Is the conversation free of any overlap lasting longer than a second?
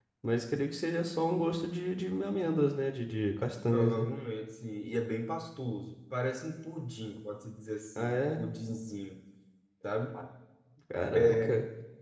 Yes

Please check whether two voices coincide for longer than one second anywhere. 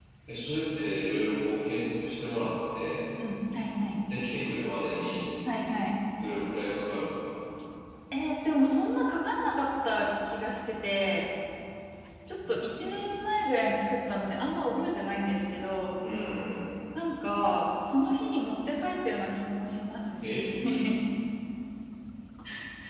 No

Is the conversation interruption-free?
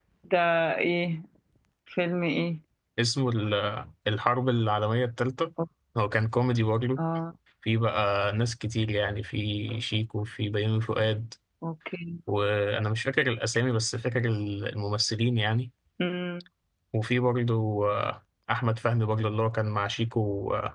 Yes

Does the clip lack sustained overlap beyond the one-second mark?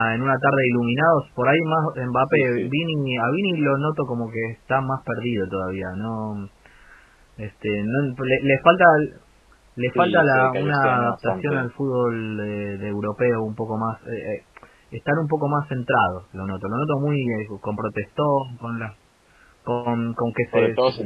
No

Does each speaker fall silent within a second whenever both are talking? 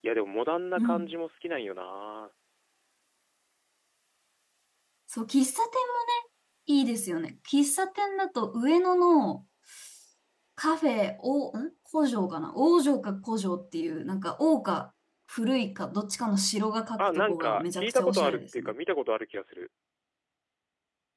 No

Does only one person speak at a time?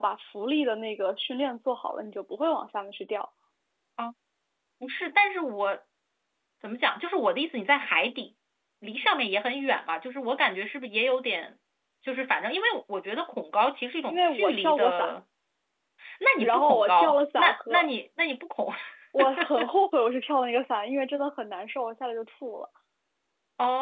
No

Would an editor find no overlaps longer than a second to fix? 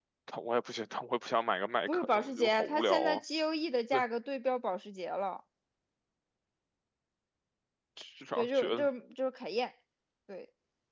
No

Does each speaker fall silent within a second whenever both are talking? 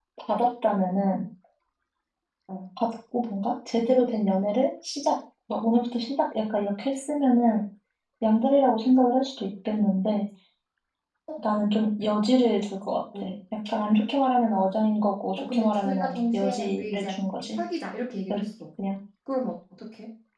No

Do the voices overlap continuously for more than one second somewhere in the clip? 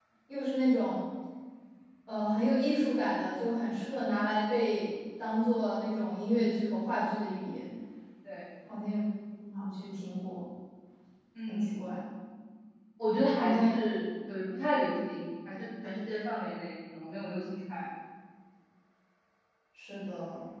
No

